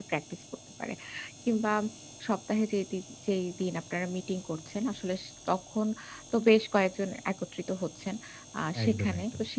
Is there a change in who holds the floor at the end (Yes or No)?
No